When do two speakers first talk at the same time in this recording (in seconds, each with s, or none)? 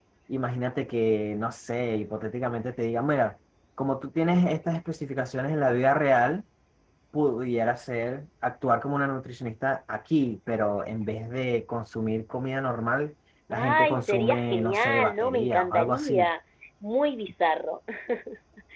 13.5 s